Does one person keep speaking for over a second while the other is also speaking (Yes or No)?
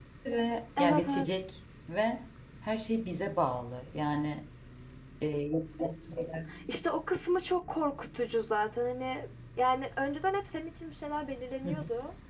No